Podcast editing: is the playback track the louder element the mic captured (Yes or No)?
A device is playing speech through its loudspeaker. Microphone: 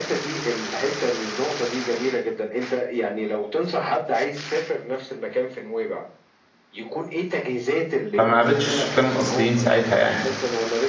No